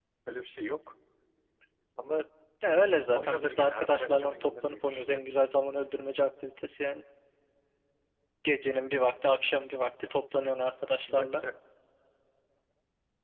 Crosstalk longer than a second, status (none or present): present